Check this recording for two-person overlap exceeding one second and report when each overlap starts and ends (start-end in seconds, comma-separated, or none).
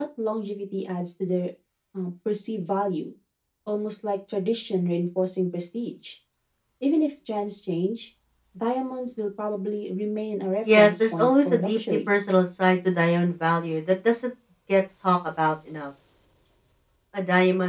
10.7-12.1